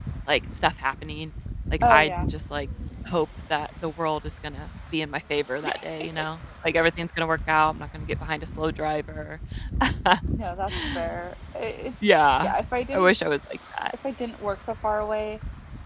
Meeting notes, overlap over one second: none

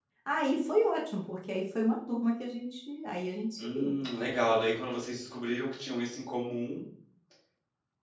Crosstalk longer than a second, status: none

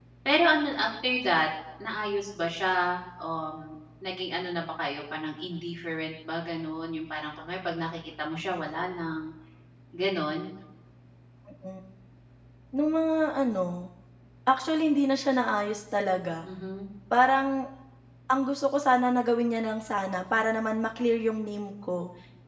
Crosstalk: none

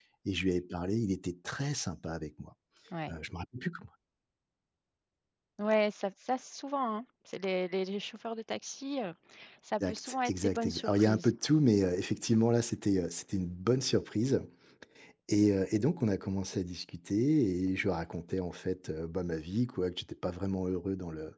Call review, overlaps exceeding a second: present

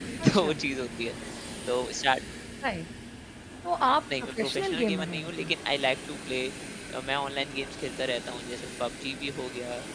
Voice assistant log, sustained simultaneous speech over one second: present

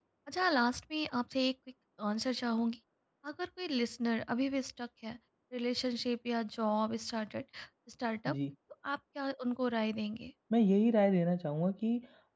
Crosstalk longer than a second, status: none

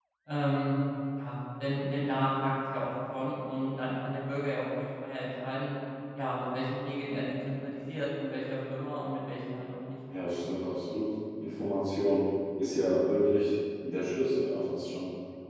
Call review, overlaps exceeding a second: none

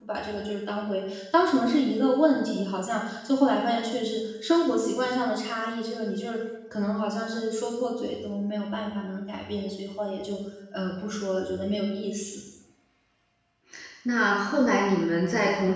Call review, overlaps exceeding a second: none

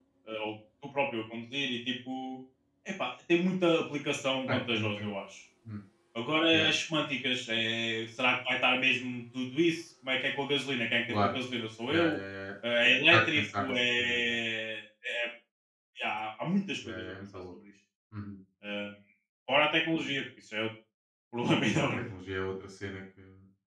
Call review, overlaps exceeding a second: present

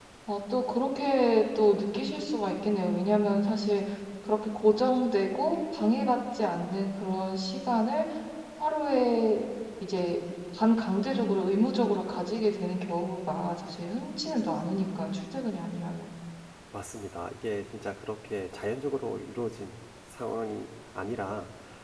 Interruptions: none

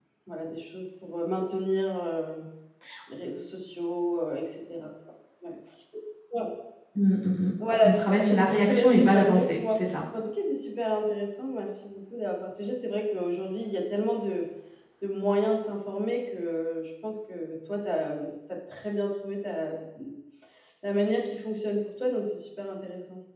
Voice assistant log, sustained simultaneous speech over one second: present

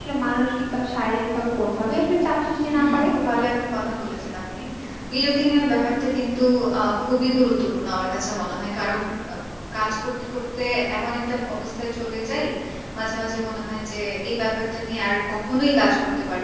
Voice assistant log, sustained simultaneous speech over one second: none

